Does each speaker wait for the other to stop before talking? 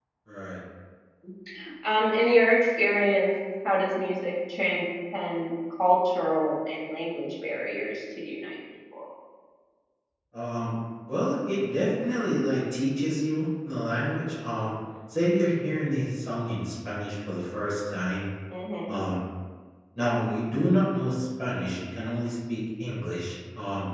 Yes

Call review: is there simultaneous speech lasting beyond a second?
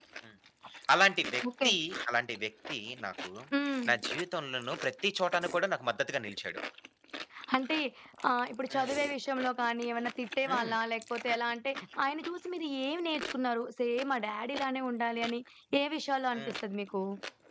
No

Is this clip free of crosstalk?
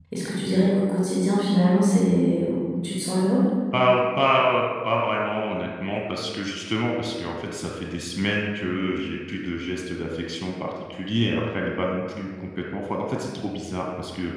Yes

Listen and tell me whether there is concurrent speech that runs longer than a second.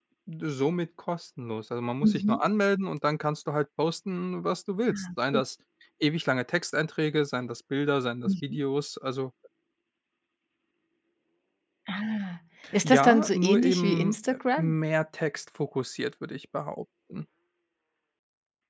Yes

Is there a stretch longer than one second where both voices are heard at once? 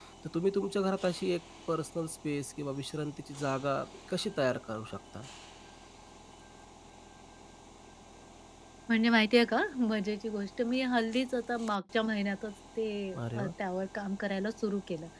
No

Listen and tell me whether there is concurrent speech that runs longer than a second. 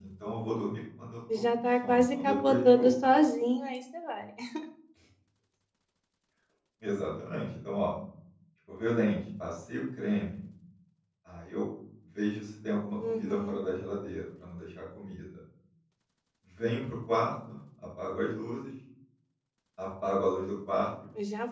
Yes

